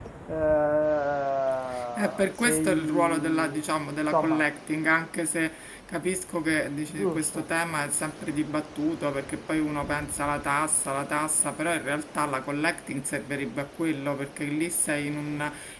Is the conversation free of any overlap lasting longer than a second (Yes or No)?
No